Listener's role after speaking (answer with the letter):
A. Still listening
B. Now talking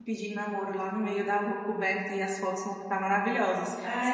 B